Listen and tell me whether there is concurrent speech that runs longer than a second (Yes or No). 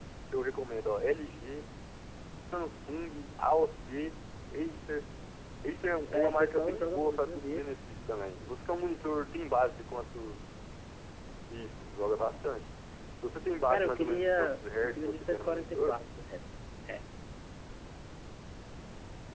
Yes